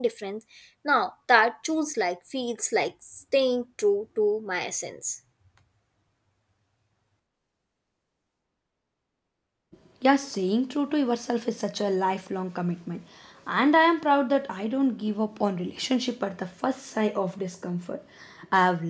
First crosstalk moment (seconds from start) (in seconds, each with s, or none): none